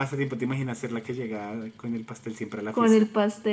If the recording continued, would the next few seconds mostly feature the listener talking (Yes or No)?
Yes